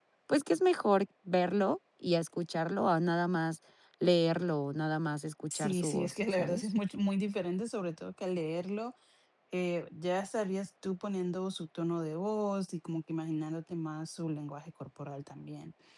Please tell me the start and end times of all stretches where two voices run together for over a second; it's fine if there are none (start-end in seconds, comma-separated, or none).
5.5-6.7